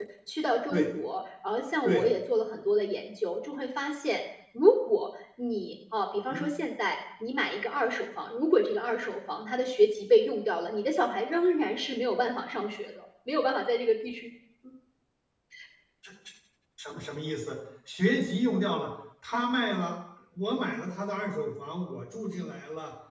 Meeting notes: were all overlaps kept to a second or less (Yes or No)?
Yes